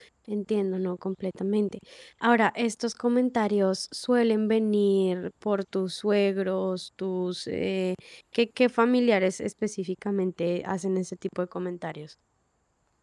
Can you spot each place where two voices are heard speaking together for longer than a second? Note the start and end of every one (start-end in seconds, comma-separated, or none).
none